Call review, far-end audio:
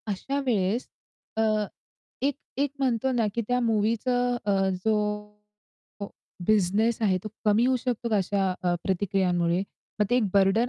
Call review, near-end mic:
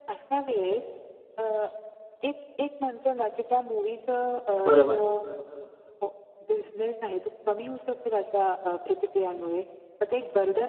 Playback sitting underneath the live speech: Yes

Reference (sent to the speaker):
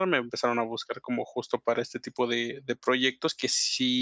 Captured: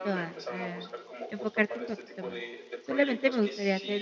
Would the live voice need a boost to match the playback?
No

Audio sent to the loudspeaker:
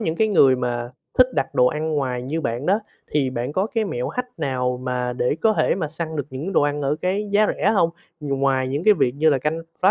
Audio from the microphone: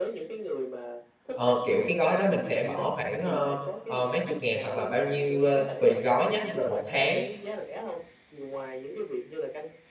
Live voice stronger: Yes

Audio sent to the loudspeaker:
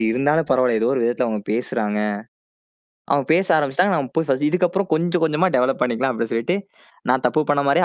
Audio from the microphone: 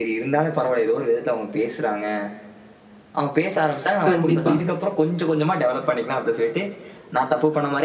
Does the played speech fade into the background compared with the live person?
Yes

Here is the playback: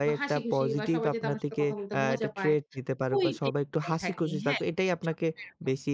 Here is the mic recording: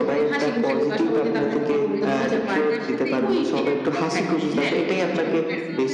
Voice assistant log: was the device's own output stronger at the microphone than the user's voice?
Yes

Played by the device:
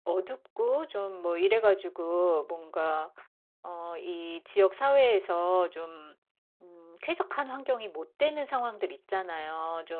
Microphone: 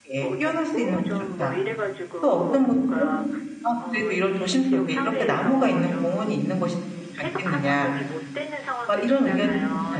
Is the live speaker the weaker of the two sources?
No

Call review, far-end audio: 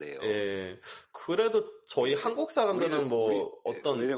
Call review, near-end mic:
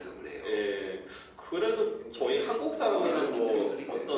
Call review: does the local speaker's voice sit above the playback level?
No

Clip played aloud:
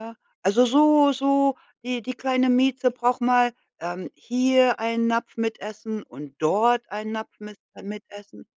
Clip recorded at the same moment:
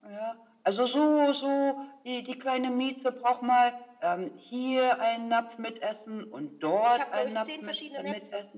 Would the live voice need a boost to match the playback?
Yes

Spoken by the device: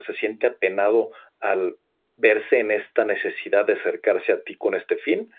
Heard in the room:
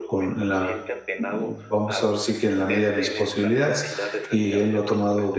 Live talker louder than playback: Yes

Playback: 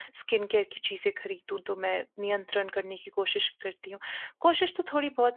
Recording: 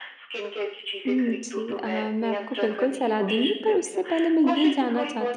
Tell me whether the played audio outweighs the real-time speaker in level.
No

